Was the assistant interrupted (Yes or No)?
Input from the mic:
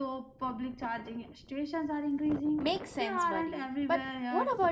Yes